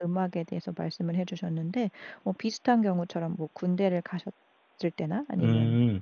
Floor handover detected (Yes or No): No